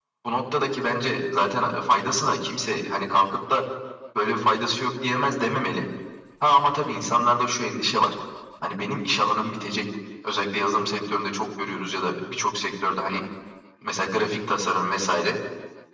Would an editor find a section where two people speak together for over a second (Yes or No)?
No